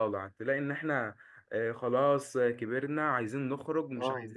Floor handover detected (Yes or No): No